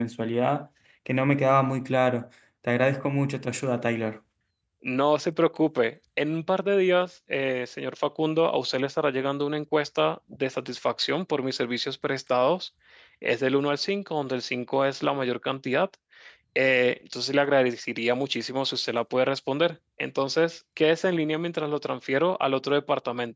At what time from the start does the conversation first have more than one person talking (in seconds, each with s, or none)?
none